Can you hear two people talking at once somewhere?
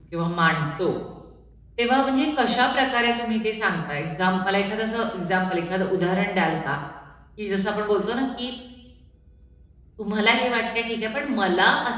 No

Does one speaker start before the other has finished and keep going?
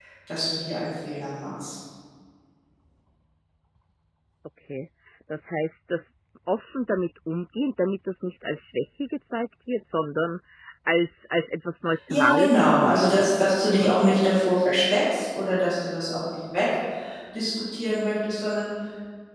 Yes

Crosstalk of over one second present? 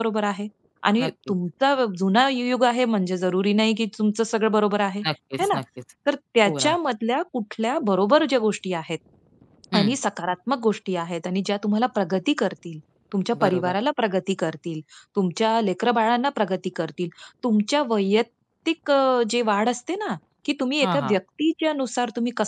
No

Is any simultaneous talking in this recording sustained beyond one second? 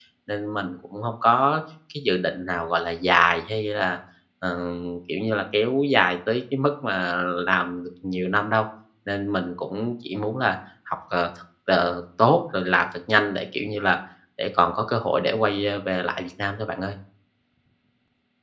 No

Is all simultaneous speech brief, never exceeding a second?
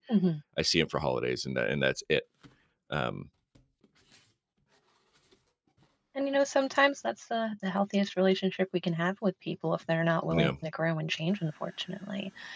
Yes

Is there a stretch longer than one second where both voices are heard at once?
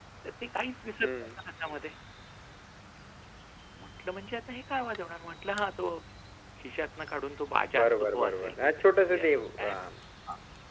Yes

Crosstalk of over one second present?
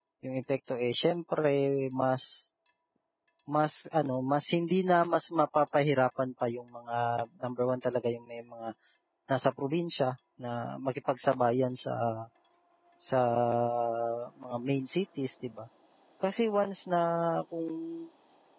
No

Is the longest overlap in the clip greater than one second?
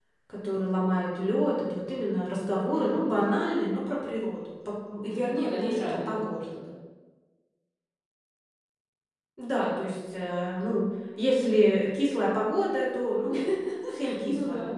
Yes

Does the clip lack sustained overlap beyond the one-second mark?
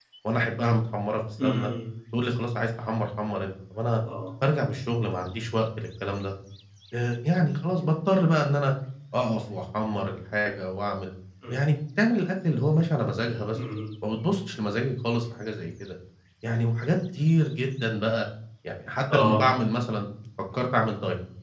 Yes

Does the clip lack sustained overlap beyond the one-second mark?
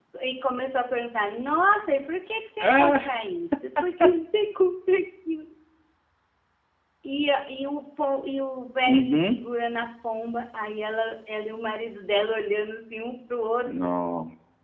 Yes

